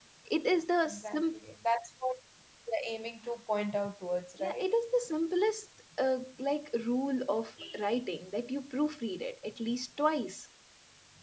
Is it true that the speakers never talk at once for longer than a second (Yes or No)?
Yes